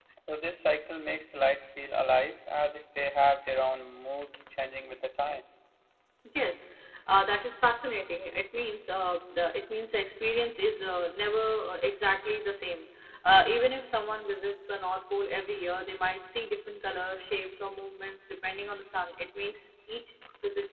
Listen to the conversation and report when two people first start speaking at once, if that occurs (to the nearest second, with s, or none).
none